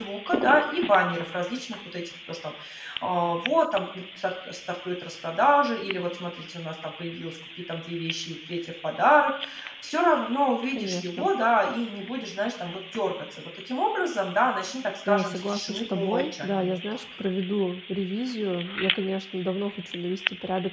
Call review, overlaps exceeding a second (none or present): present